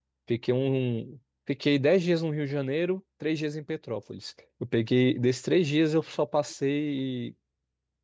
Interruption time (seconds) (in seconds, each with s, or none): none